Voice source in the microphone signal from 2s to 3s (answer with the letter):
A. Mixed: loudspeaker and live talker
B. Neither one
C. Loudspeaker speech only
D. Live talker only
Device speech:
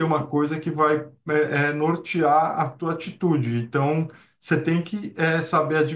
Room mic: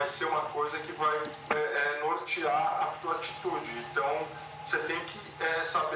C